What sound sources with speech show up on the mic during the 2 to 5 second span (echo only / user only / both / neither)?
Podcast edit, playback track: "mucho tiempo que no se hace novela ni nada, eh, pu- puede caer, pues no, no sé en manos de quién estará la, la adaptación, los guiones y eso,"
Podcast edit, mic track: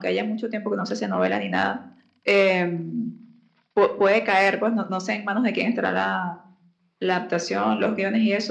echo only